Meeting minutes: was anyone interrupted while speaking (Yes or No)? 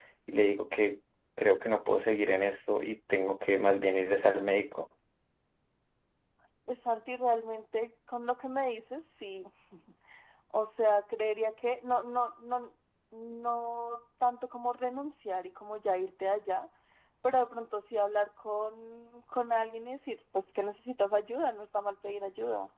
No